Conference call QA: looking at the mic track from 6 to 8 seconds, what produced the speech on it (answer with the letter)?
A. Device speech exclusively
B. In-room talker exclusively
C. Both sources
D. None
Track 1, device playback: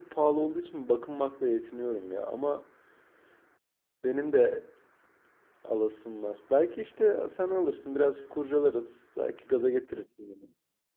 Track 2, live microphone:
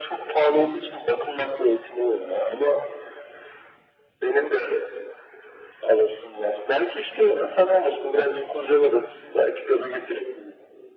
A